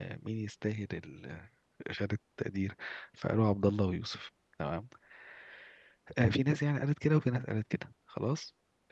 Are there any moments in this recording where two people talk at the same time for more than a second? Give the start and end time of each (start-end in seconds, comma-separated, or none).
none